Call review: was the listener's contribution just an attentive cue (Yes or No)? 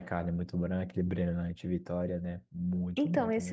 No